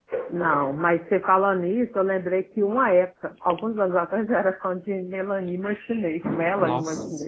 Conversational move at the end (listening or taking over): taking over